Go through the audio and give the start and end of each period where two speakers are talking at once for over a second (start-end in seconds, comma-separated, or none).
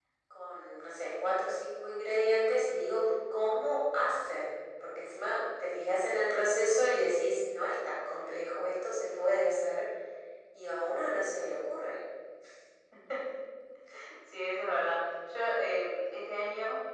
none